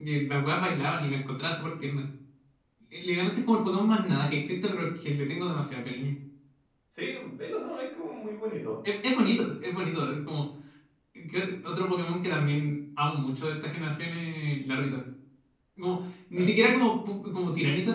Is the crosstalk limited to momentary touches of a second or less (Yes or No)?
Yes